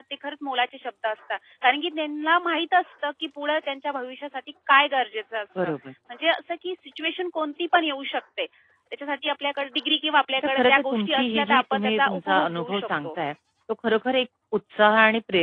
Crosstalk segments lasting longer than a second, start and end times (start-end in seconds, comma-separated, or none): 10.5-13.1